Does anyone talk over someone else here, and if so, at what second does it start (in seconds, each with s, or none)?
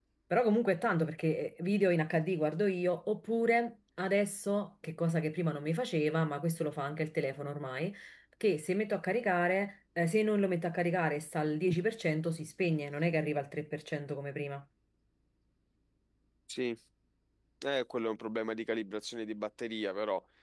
none